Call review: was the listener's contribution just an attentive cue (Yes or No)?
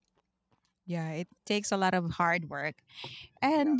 Yes